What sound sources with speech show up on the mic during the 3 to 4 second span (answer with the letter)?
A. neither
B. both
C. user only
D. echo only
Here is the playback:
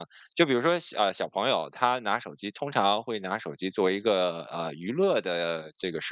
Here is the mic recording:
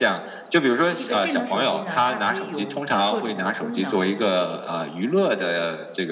B